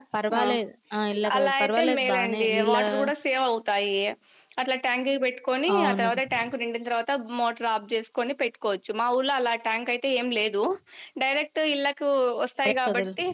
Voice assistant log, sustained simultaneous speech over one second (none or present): present